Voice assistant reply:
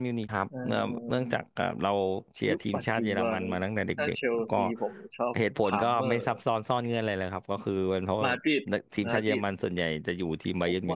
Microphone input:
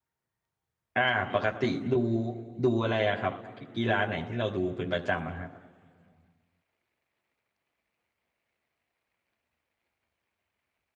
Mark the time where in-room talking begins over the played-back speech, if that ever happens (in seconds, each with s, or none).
0.9 s